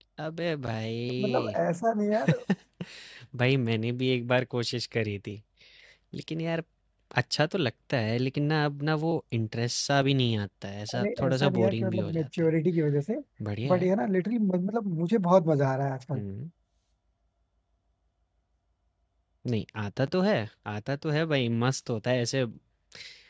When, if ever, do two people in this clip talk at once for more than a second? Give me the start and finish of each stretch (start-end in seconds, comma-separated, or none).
10.9-12.5